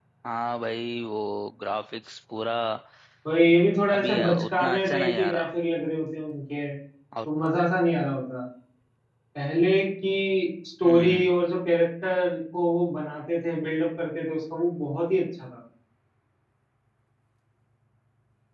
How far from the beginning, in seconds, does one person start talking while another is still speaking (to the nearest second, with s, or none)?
4 s